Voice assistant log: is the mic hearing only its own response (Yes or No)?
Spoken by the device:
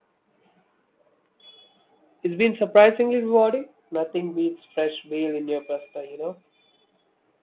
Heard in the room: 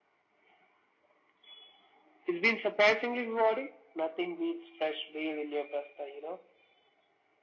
Yes